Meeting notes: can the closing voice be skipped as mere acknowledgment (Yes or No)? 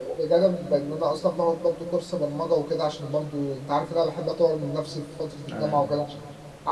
Yes